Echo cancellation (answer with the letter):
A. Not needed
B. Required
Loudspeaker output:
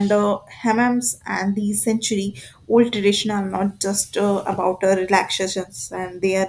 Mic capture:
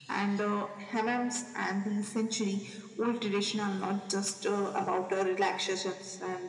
B